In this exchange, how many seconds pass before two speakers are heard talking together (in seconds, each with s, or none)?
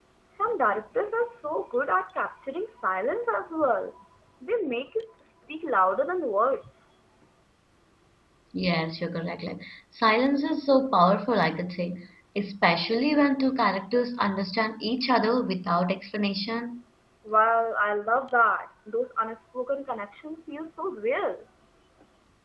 none